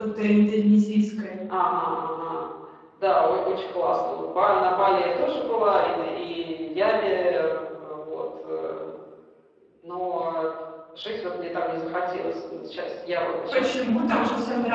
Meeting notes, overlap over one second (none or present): none